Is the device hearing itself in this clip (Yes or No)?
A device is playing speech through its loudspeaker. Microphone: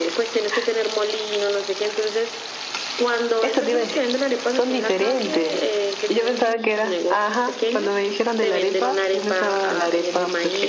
Yes